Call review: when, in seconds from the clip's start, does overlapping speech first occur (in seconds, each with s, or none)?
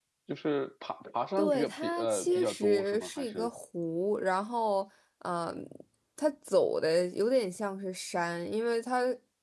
1.4 s